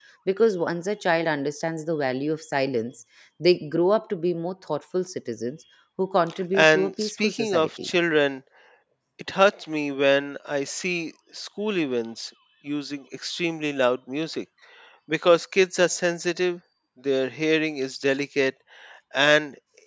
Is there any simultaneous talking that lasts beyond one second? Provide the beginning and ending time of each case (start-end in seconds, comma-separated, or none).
6.5-7.9